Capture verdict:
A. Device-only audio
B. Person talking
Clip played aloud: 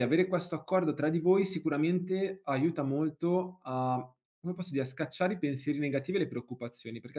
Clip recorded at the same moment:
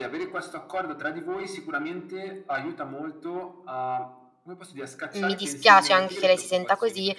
B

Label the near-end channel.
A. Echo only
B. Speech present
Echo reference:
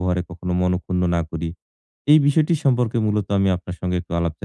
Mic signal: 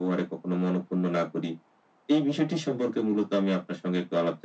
A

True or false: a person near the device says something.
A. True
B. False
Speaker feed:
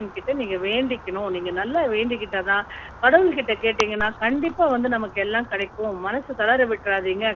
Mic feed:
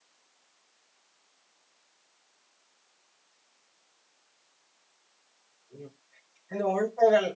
A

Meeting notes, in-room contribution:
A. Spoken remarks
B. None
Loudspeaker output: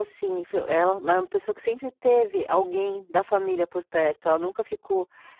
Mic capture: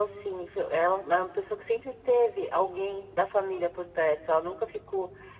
B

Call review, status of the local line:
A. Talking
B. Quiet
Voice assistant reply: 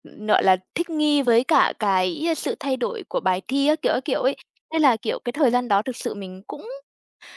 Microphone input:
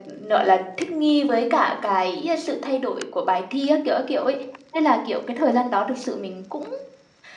B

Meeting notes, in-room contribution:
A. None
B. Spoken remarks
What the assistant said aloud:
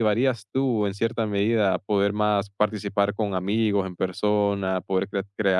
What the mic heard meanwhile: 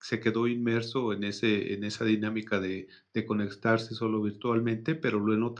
B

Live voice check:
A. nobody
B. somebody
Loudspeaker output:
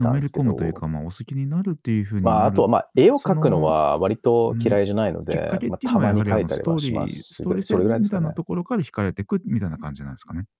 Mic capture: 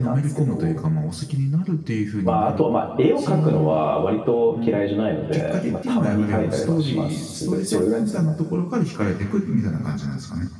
A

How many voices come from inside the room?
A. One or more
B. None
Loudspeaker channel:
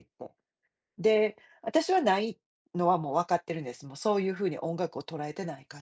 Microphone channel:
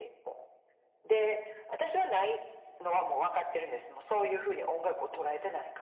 B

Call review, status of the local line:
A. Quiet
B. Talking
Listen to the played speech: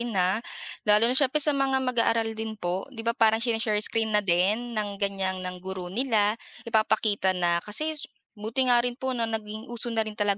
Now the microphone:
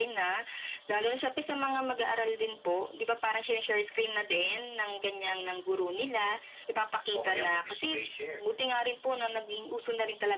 B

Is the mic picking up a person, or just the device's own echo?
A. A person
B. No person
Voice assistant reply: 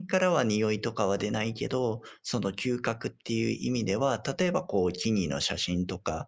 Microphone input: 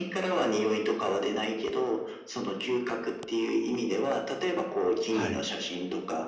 A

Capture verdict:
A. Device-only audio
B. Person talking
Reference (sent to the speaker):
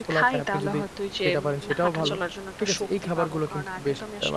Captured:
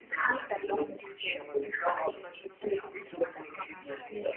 B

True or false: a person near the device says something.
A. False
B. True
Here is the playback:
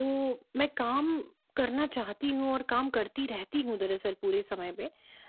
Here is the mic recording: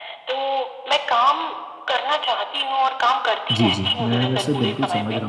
B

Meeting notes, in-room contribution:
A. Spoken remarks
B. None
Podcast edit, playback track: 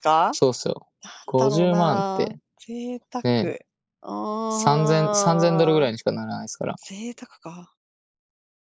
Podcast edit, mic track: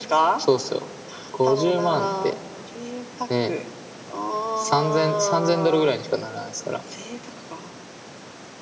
B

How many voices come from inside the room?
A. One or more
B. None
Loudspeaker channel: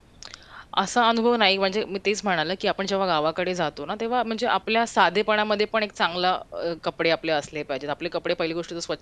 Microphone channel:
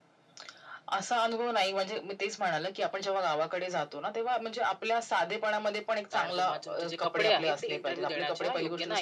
A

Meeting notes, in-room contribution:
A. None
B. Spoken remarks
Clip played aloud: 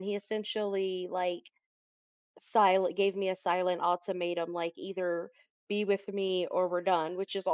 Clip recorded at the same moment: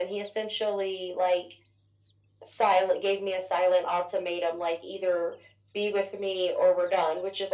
A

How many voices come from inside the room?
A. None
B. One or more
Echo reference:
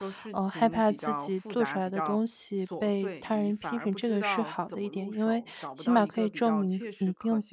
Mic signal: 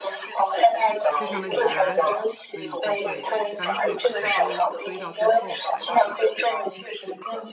B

